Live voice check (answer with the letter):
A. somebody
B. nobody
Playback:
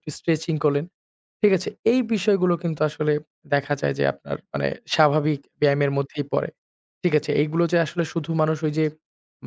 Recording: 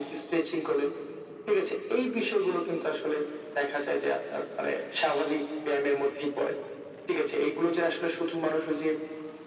B